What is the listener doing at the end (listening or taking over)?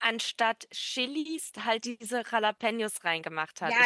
taking over